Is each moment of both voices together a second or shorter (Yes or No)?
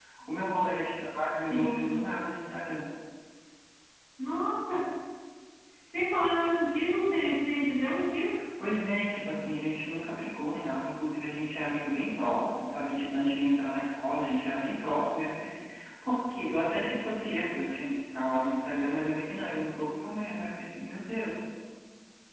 Yes